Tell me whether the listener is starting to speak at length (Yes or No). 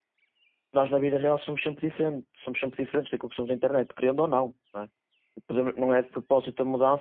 No